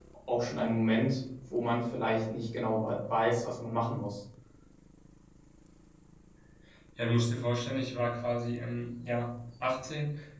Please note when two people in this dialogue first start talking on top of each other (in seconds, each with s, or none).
none